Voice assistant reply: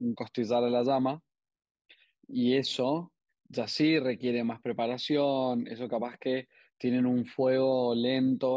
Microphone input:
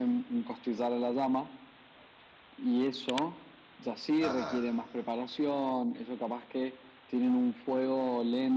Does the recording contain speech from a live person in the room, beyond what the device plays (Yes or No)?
Yes